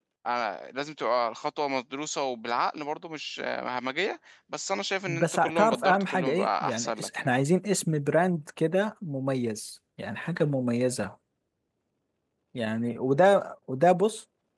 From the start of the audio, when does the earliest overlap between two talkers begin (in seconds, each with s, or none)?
5.1 s